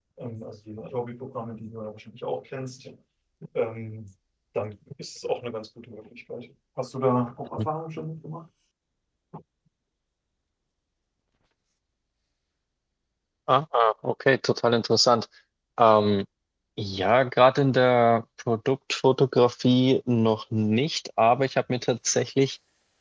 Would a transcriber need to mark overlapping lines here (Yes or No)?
No